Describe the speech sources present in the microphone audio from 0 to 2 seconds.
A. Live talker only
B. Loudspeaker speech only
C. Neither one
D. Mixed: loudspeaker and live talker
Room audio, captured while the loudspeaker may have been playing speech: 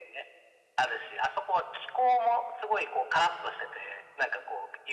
B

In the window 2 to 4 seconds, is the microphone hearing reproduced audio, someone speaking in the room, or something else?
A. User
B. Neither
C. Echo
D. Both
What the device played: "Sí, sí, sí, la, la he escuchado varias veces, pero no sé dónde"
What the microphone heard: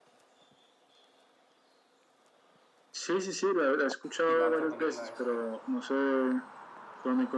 C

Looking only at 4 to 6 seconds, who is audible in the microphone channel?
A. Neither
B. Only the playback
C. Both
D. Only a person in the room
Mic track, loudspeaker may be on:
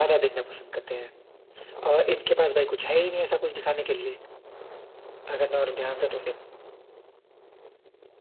B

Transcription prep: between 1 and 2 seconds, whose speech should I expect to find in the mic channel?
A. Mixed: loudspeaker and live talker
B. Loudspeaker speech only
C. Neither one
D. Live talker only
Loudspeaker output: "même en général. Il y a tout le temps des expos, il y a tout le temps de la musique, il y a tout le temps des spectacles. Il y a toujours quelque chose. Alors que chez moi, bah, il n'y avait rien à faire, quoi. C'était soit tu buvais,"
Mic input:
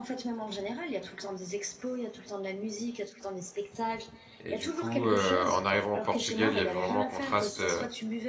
B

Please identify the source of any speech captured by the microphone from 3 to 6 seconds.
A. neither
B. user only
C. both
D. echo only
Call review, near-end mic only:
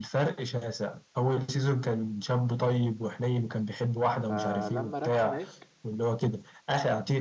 C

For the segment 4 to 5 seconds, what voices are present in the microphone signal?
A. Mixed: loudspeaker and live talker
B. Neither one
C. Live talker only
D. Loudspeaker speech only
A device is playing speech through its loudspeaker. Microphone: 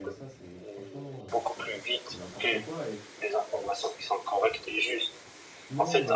D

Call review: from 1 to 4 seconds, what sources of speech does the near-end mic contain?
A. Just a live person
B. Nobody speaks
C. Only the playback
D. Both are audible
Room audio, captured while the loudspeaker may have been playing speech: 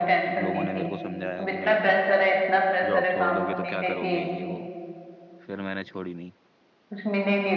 D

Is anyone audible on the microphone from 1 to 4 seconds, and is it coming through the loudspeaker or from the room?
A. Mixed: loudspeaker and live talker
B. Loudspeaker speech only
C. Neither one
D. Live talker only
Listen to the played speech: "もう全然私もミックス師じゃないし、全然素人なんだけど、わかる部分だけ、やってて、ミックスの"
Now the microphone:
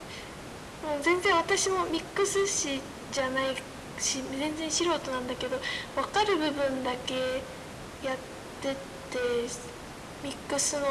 B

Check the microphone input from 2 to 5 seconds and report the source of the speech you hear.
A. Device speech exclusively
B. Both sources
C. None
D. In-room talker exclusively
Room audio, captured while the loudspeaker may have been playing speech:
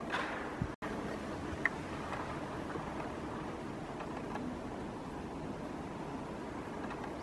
C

